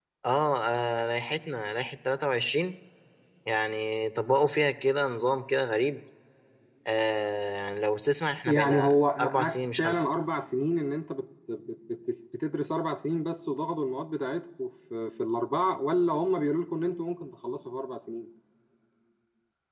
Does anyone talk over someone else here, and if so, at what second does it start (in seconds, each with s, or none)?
8.4 s